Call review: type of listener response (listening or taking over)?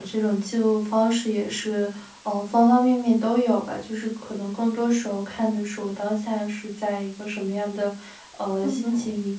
listening